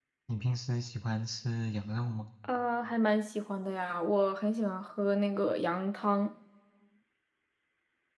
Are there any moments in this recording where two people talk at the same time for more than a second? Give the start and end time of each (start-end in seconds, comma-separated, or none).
none